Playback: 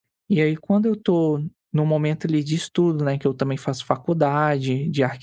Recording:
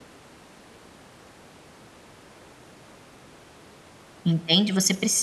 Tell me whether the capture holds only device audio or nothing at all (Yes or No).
No